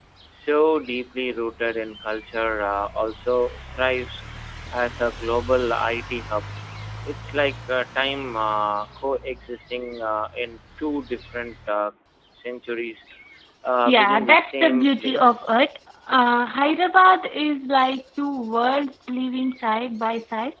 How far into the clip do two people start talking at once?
13.9 s

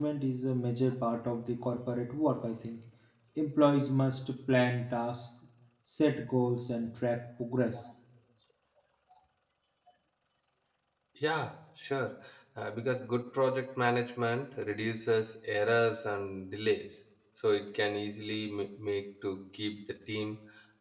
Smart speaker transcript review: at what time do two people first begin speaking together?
none

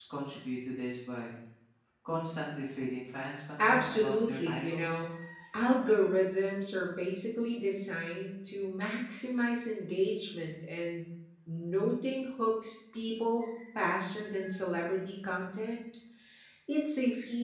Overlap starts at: 3.6 s

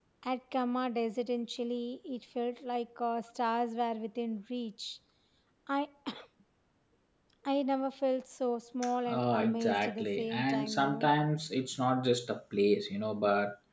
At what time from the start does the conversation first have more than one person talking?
9.1 s

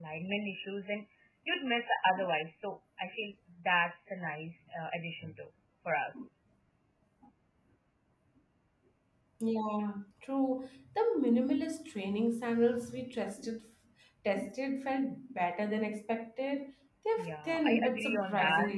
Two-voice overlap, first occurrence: 17.2 s

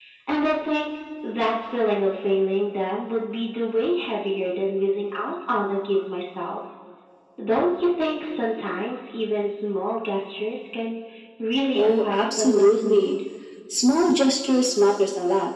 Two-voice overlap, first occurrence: 11.7 s

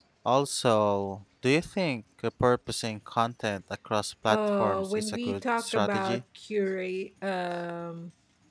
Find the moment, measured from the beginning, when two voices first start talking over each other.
4.3 s

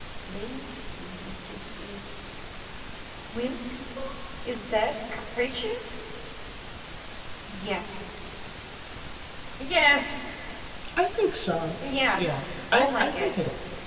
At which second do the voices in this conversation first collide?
12.1 s

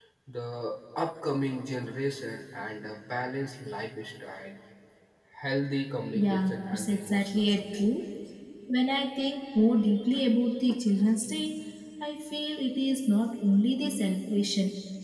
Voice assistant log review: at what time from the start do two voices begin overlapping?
6.1 s

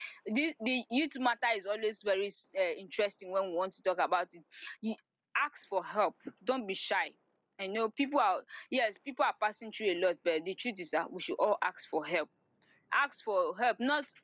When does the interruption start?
none

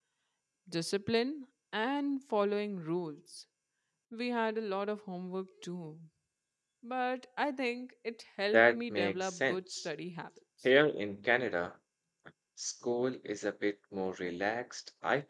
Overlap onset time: 8.5 s

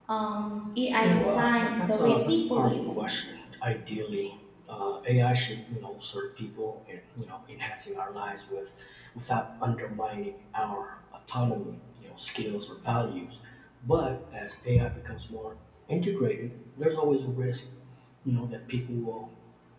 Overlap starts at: 1.0 s

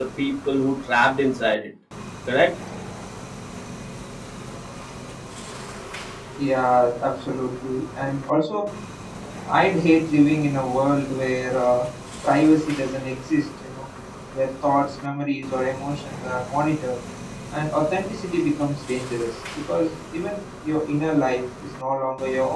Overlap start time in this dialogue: none

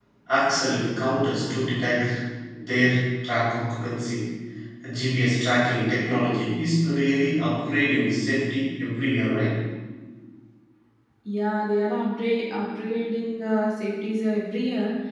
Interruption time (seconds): none

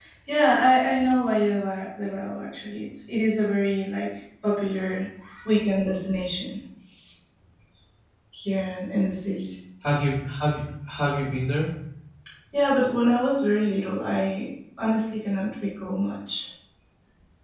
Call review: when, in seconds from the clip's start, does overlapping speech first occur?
none

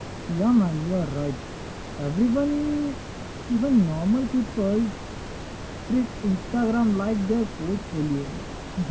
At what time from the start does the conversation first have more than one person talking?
none

